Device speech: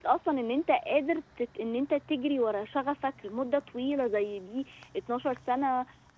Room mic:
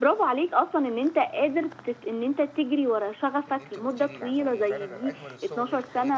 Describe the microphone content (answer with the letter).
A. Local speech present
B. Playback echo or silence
A